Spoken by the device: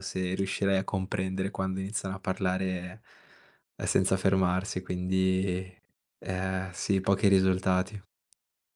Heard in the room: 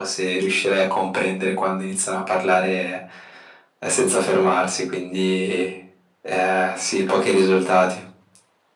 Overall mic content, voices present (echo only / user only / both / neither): echo only